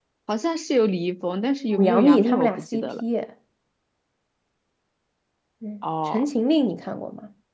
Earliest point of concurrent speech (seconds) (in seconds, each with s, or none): 1.7 s